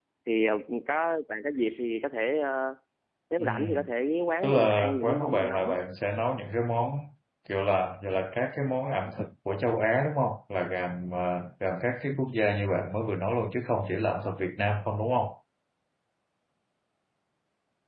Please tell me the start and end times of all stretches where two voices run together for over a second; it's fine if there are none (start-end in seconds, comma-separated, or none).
4.4-5.8